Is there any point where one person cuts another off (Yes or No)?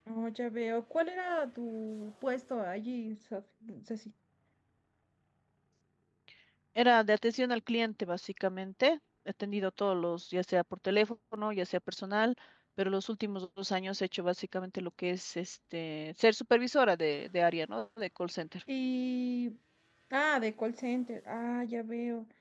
No